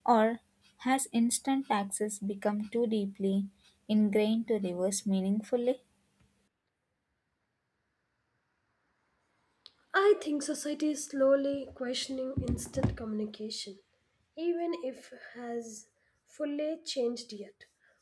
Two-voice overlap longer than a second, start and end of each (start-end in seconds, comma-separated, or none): none